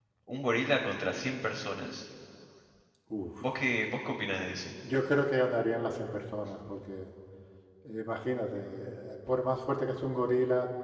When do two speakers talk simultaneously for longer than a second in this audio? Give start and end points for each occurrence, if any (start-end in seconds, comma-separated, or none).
none